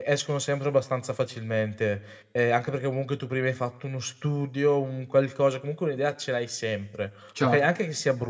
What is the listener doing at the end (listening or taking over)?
listening